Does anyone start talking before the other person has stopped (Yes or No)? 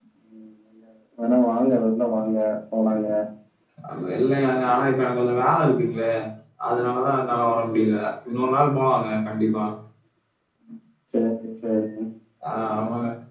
No